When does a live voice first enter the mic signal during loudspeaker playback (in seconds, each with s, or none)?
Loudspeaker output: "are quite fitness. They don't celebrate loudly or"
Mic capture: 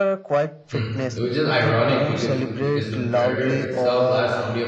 0.7 s